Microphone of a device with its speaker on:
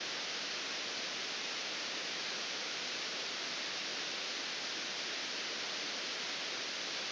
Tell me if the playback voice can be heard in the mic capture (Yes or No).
No